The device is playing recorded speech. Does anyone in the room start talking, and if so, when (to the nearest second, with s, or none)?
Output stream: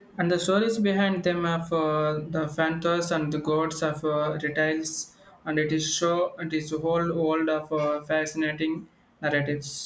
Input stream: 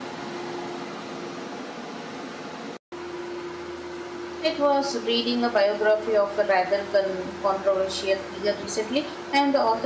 4 s